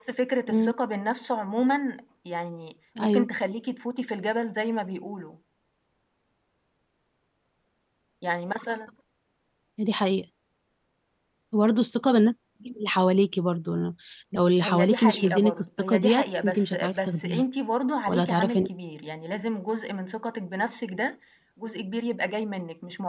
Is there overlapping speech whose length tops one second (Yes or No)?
Yes